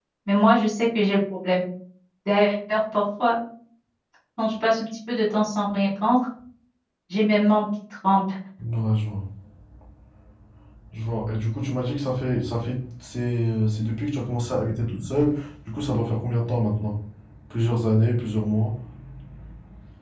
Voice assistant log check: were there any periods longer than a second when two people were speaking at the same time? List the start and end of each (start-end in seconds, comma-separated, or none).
none